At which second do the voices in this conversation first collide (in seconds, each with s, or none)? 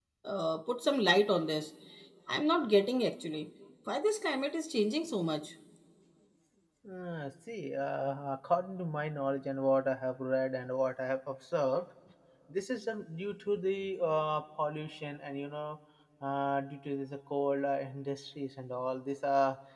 none